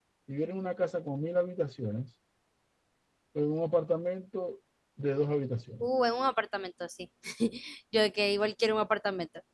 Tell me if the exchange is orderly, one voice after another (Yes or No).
Yes